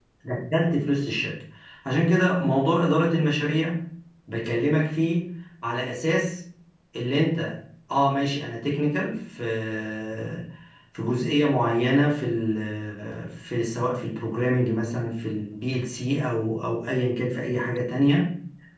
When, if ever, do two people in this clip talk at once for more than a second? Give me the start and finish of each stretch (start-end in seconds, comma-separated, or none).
none